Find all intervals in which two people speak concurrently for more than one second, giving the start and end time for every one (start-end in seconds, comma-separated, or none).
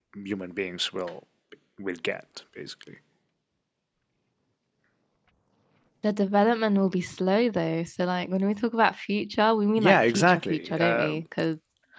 9.8-11.2